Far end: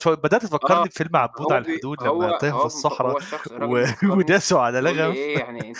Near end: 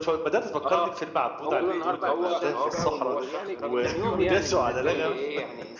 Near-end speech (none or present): present